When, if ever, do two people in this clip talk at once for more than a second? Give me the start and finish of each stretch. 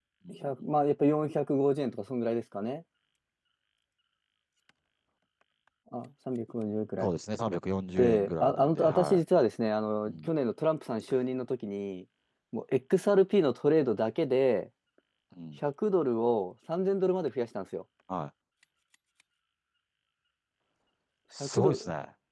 8.0-9.2

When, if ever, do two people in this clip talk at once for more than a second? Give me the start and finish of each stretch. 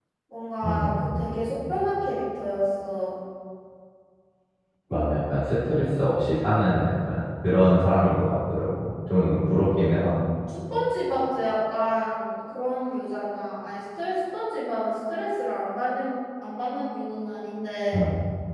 none

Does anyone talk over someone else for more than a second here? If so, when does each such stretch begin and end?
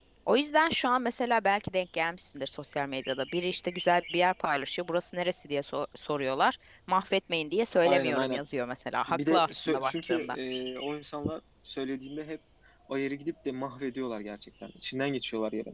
9.1-10.4

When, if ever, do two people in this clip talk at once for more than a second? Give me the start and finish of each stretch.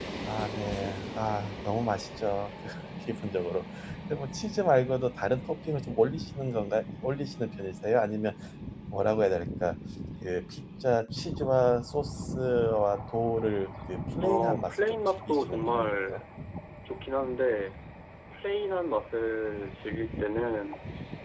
14.2-16.2

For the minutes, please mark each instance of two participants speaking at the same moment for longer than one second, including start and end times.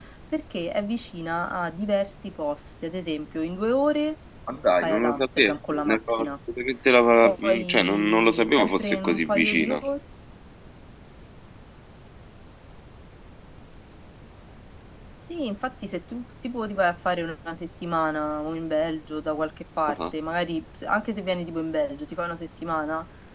4.8-6.3, 7.2-9.8

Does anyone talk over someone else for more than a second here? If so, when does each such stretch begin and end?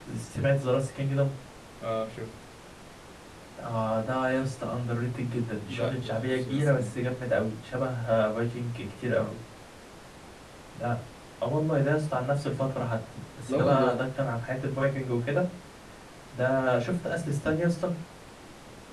5.7-7.0

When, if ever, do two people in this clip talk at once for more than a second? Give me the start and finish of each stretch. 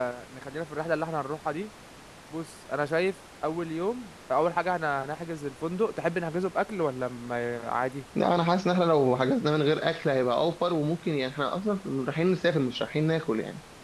none

